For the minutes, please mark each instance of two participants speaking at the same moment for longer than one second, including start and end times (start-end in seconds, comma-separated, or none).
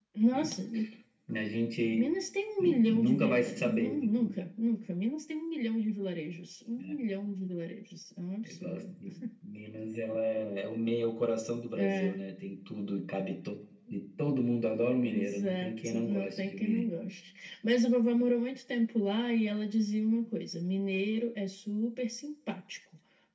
2.6-4.4, 15.0-16.9